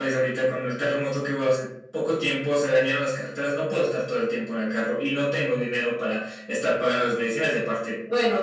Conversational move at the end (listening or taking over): taking over